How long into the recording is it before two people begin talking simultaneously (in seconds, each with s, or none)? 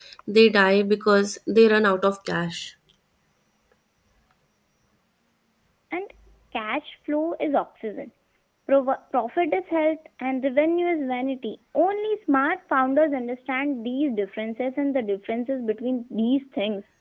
none